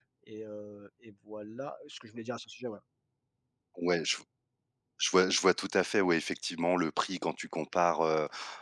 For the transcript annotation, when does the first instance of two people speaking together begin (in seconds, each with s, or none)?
none